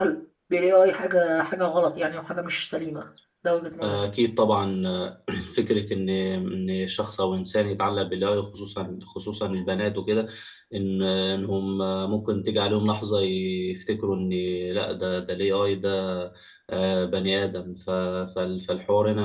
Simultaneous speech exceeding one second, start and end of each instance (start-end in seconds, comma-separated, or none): none